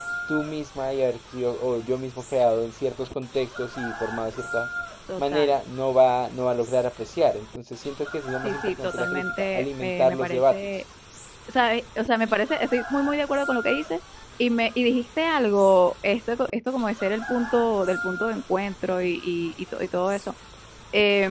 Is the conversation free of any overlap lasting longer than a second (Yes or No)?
No